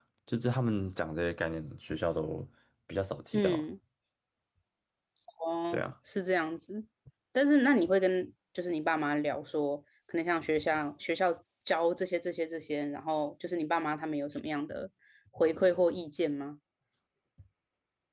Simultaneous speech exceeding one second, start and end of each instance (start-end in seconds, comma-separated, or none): none